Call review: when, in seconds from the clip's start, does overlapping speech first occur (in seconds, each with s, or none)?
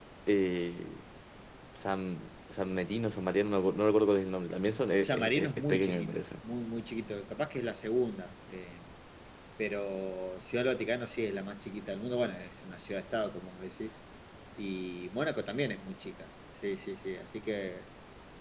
5.0 s